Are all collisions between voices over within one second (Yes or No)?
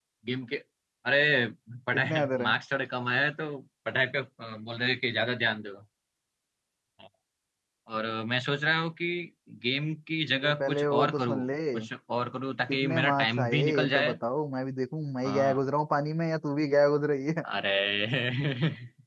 No